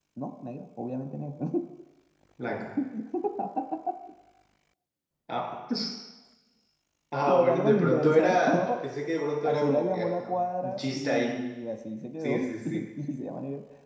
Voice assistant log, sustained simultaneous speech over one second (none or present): present